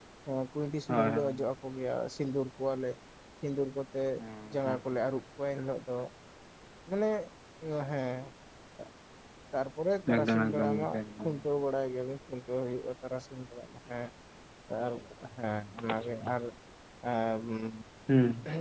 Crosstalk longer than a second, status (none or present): present